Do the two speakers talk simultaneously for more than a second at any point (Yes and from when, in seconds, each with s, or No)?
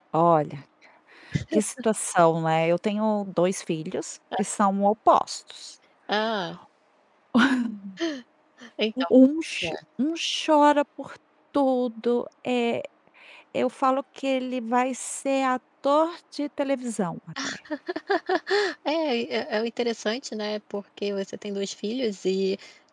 No